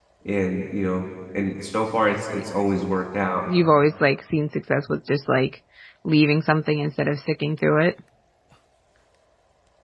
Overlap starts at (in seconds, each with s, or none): none